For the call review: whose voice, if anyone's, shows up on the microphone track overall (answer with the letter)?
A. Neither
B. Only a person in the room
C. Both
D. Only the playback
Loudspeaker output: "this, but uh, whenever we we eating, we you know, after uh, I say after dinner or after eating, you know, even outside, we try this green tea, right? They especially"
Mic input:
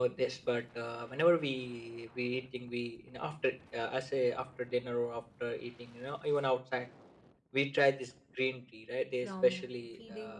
C